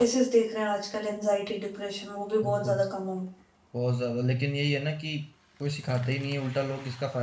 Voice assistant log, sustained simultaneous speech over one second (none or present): none